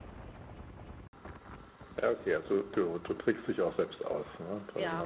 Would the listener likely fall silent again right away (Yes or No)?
No